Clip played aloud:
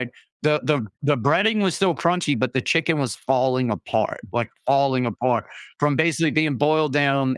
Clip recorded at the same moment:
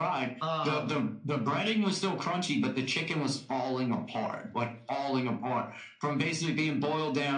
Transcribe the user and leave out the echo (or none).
Um,